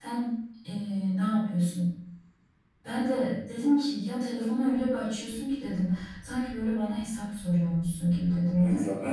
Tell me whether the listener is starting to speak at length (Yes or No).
Yes